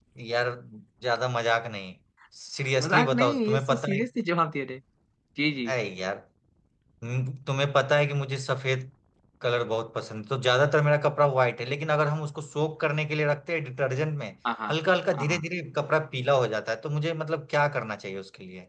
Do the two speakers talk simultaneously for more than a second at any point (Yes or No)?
Yes